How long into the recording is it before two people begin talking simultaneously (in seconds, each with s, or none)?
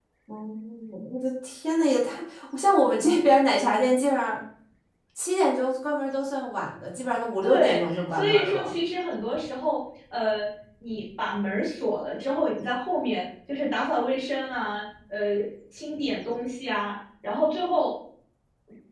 7.4 s